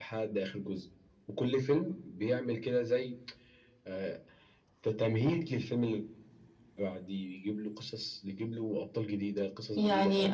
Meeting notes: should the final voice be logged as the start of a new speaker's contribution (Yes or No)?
No